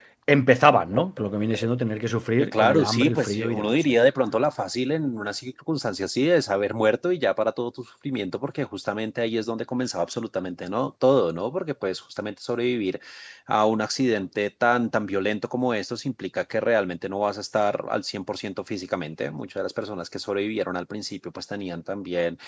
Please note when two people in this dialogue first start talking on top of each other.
2.4 s

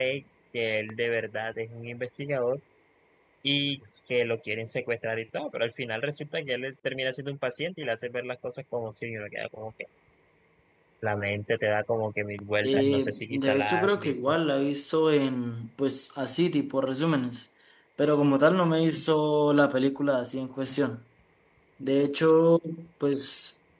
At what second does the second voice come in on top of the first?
12.6 s

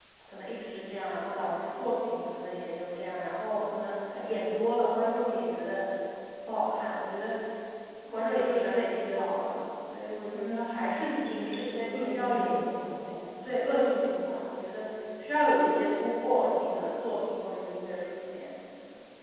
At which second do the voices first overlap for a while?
10.3 s

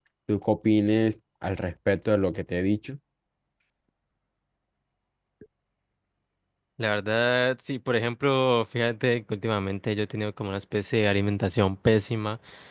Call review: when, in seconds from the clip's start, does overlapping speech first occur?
none

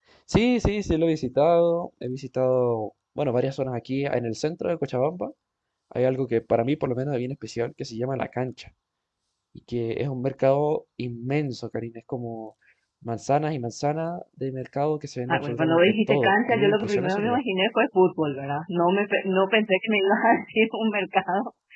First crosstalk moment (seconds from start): 15.3 s

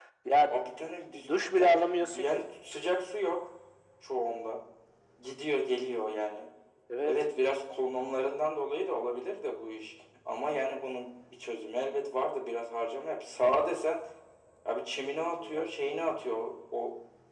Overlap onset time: 1.3 s

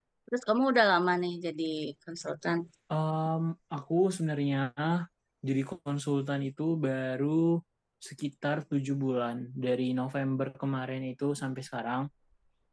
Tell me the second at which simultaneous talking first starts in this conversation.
none

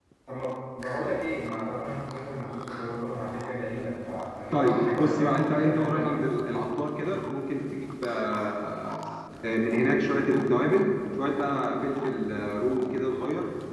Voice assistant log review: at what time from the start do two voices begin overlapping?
4.5 s

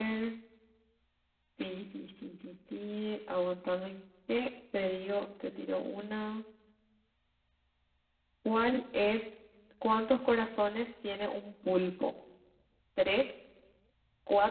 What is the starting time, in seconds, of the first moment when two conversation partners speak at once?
none

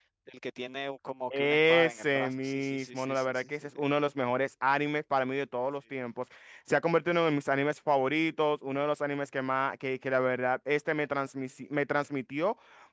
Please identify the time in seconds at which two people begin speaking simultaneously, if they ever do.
1.3 s

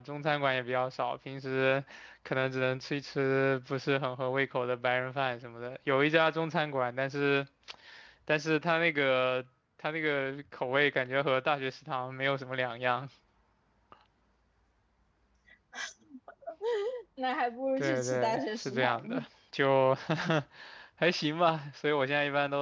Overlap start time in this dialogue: 17.8 s

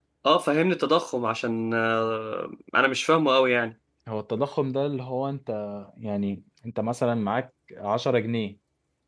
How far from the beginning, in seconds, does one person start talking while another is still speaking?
none

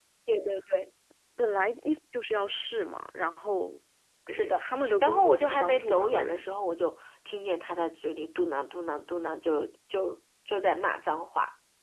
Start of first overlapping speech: 4.3 s

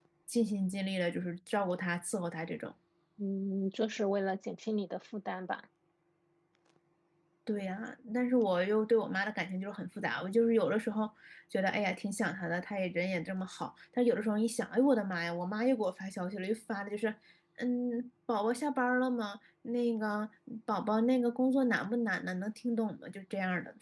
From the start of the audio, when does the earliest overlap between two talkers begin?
none

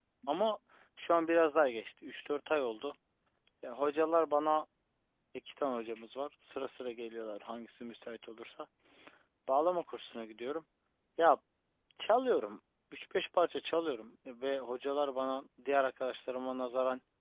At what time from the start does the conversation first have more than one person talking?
none

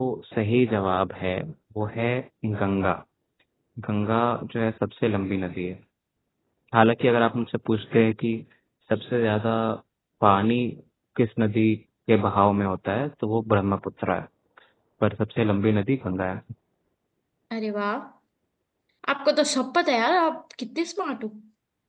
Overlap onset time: none

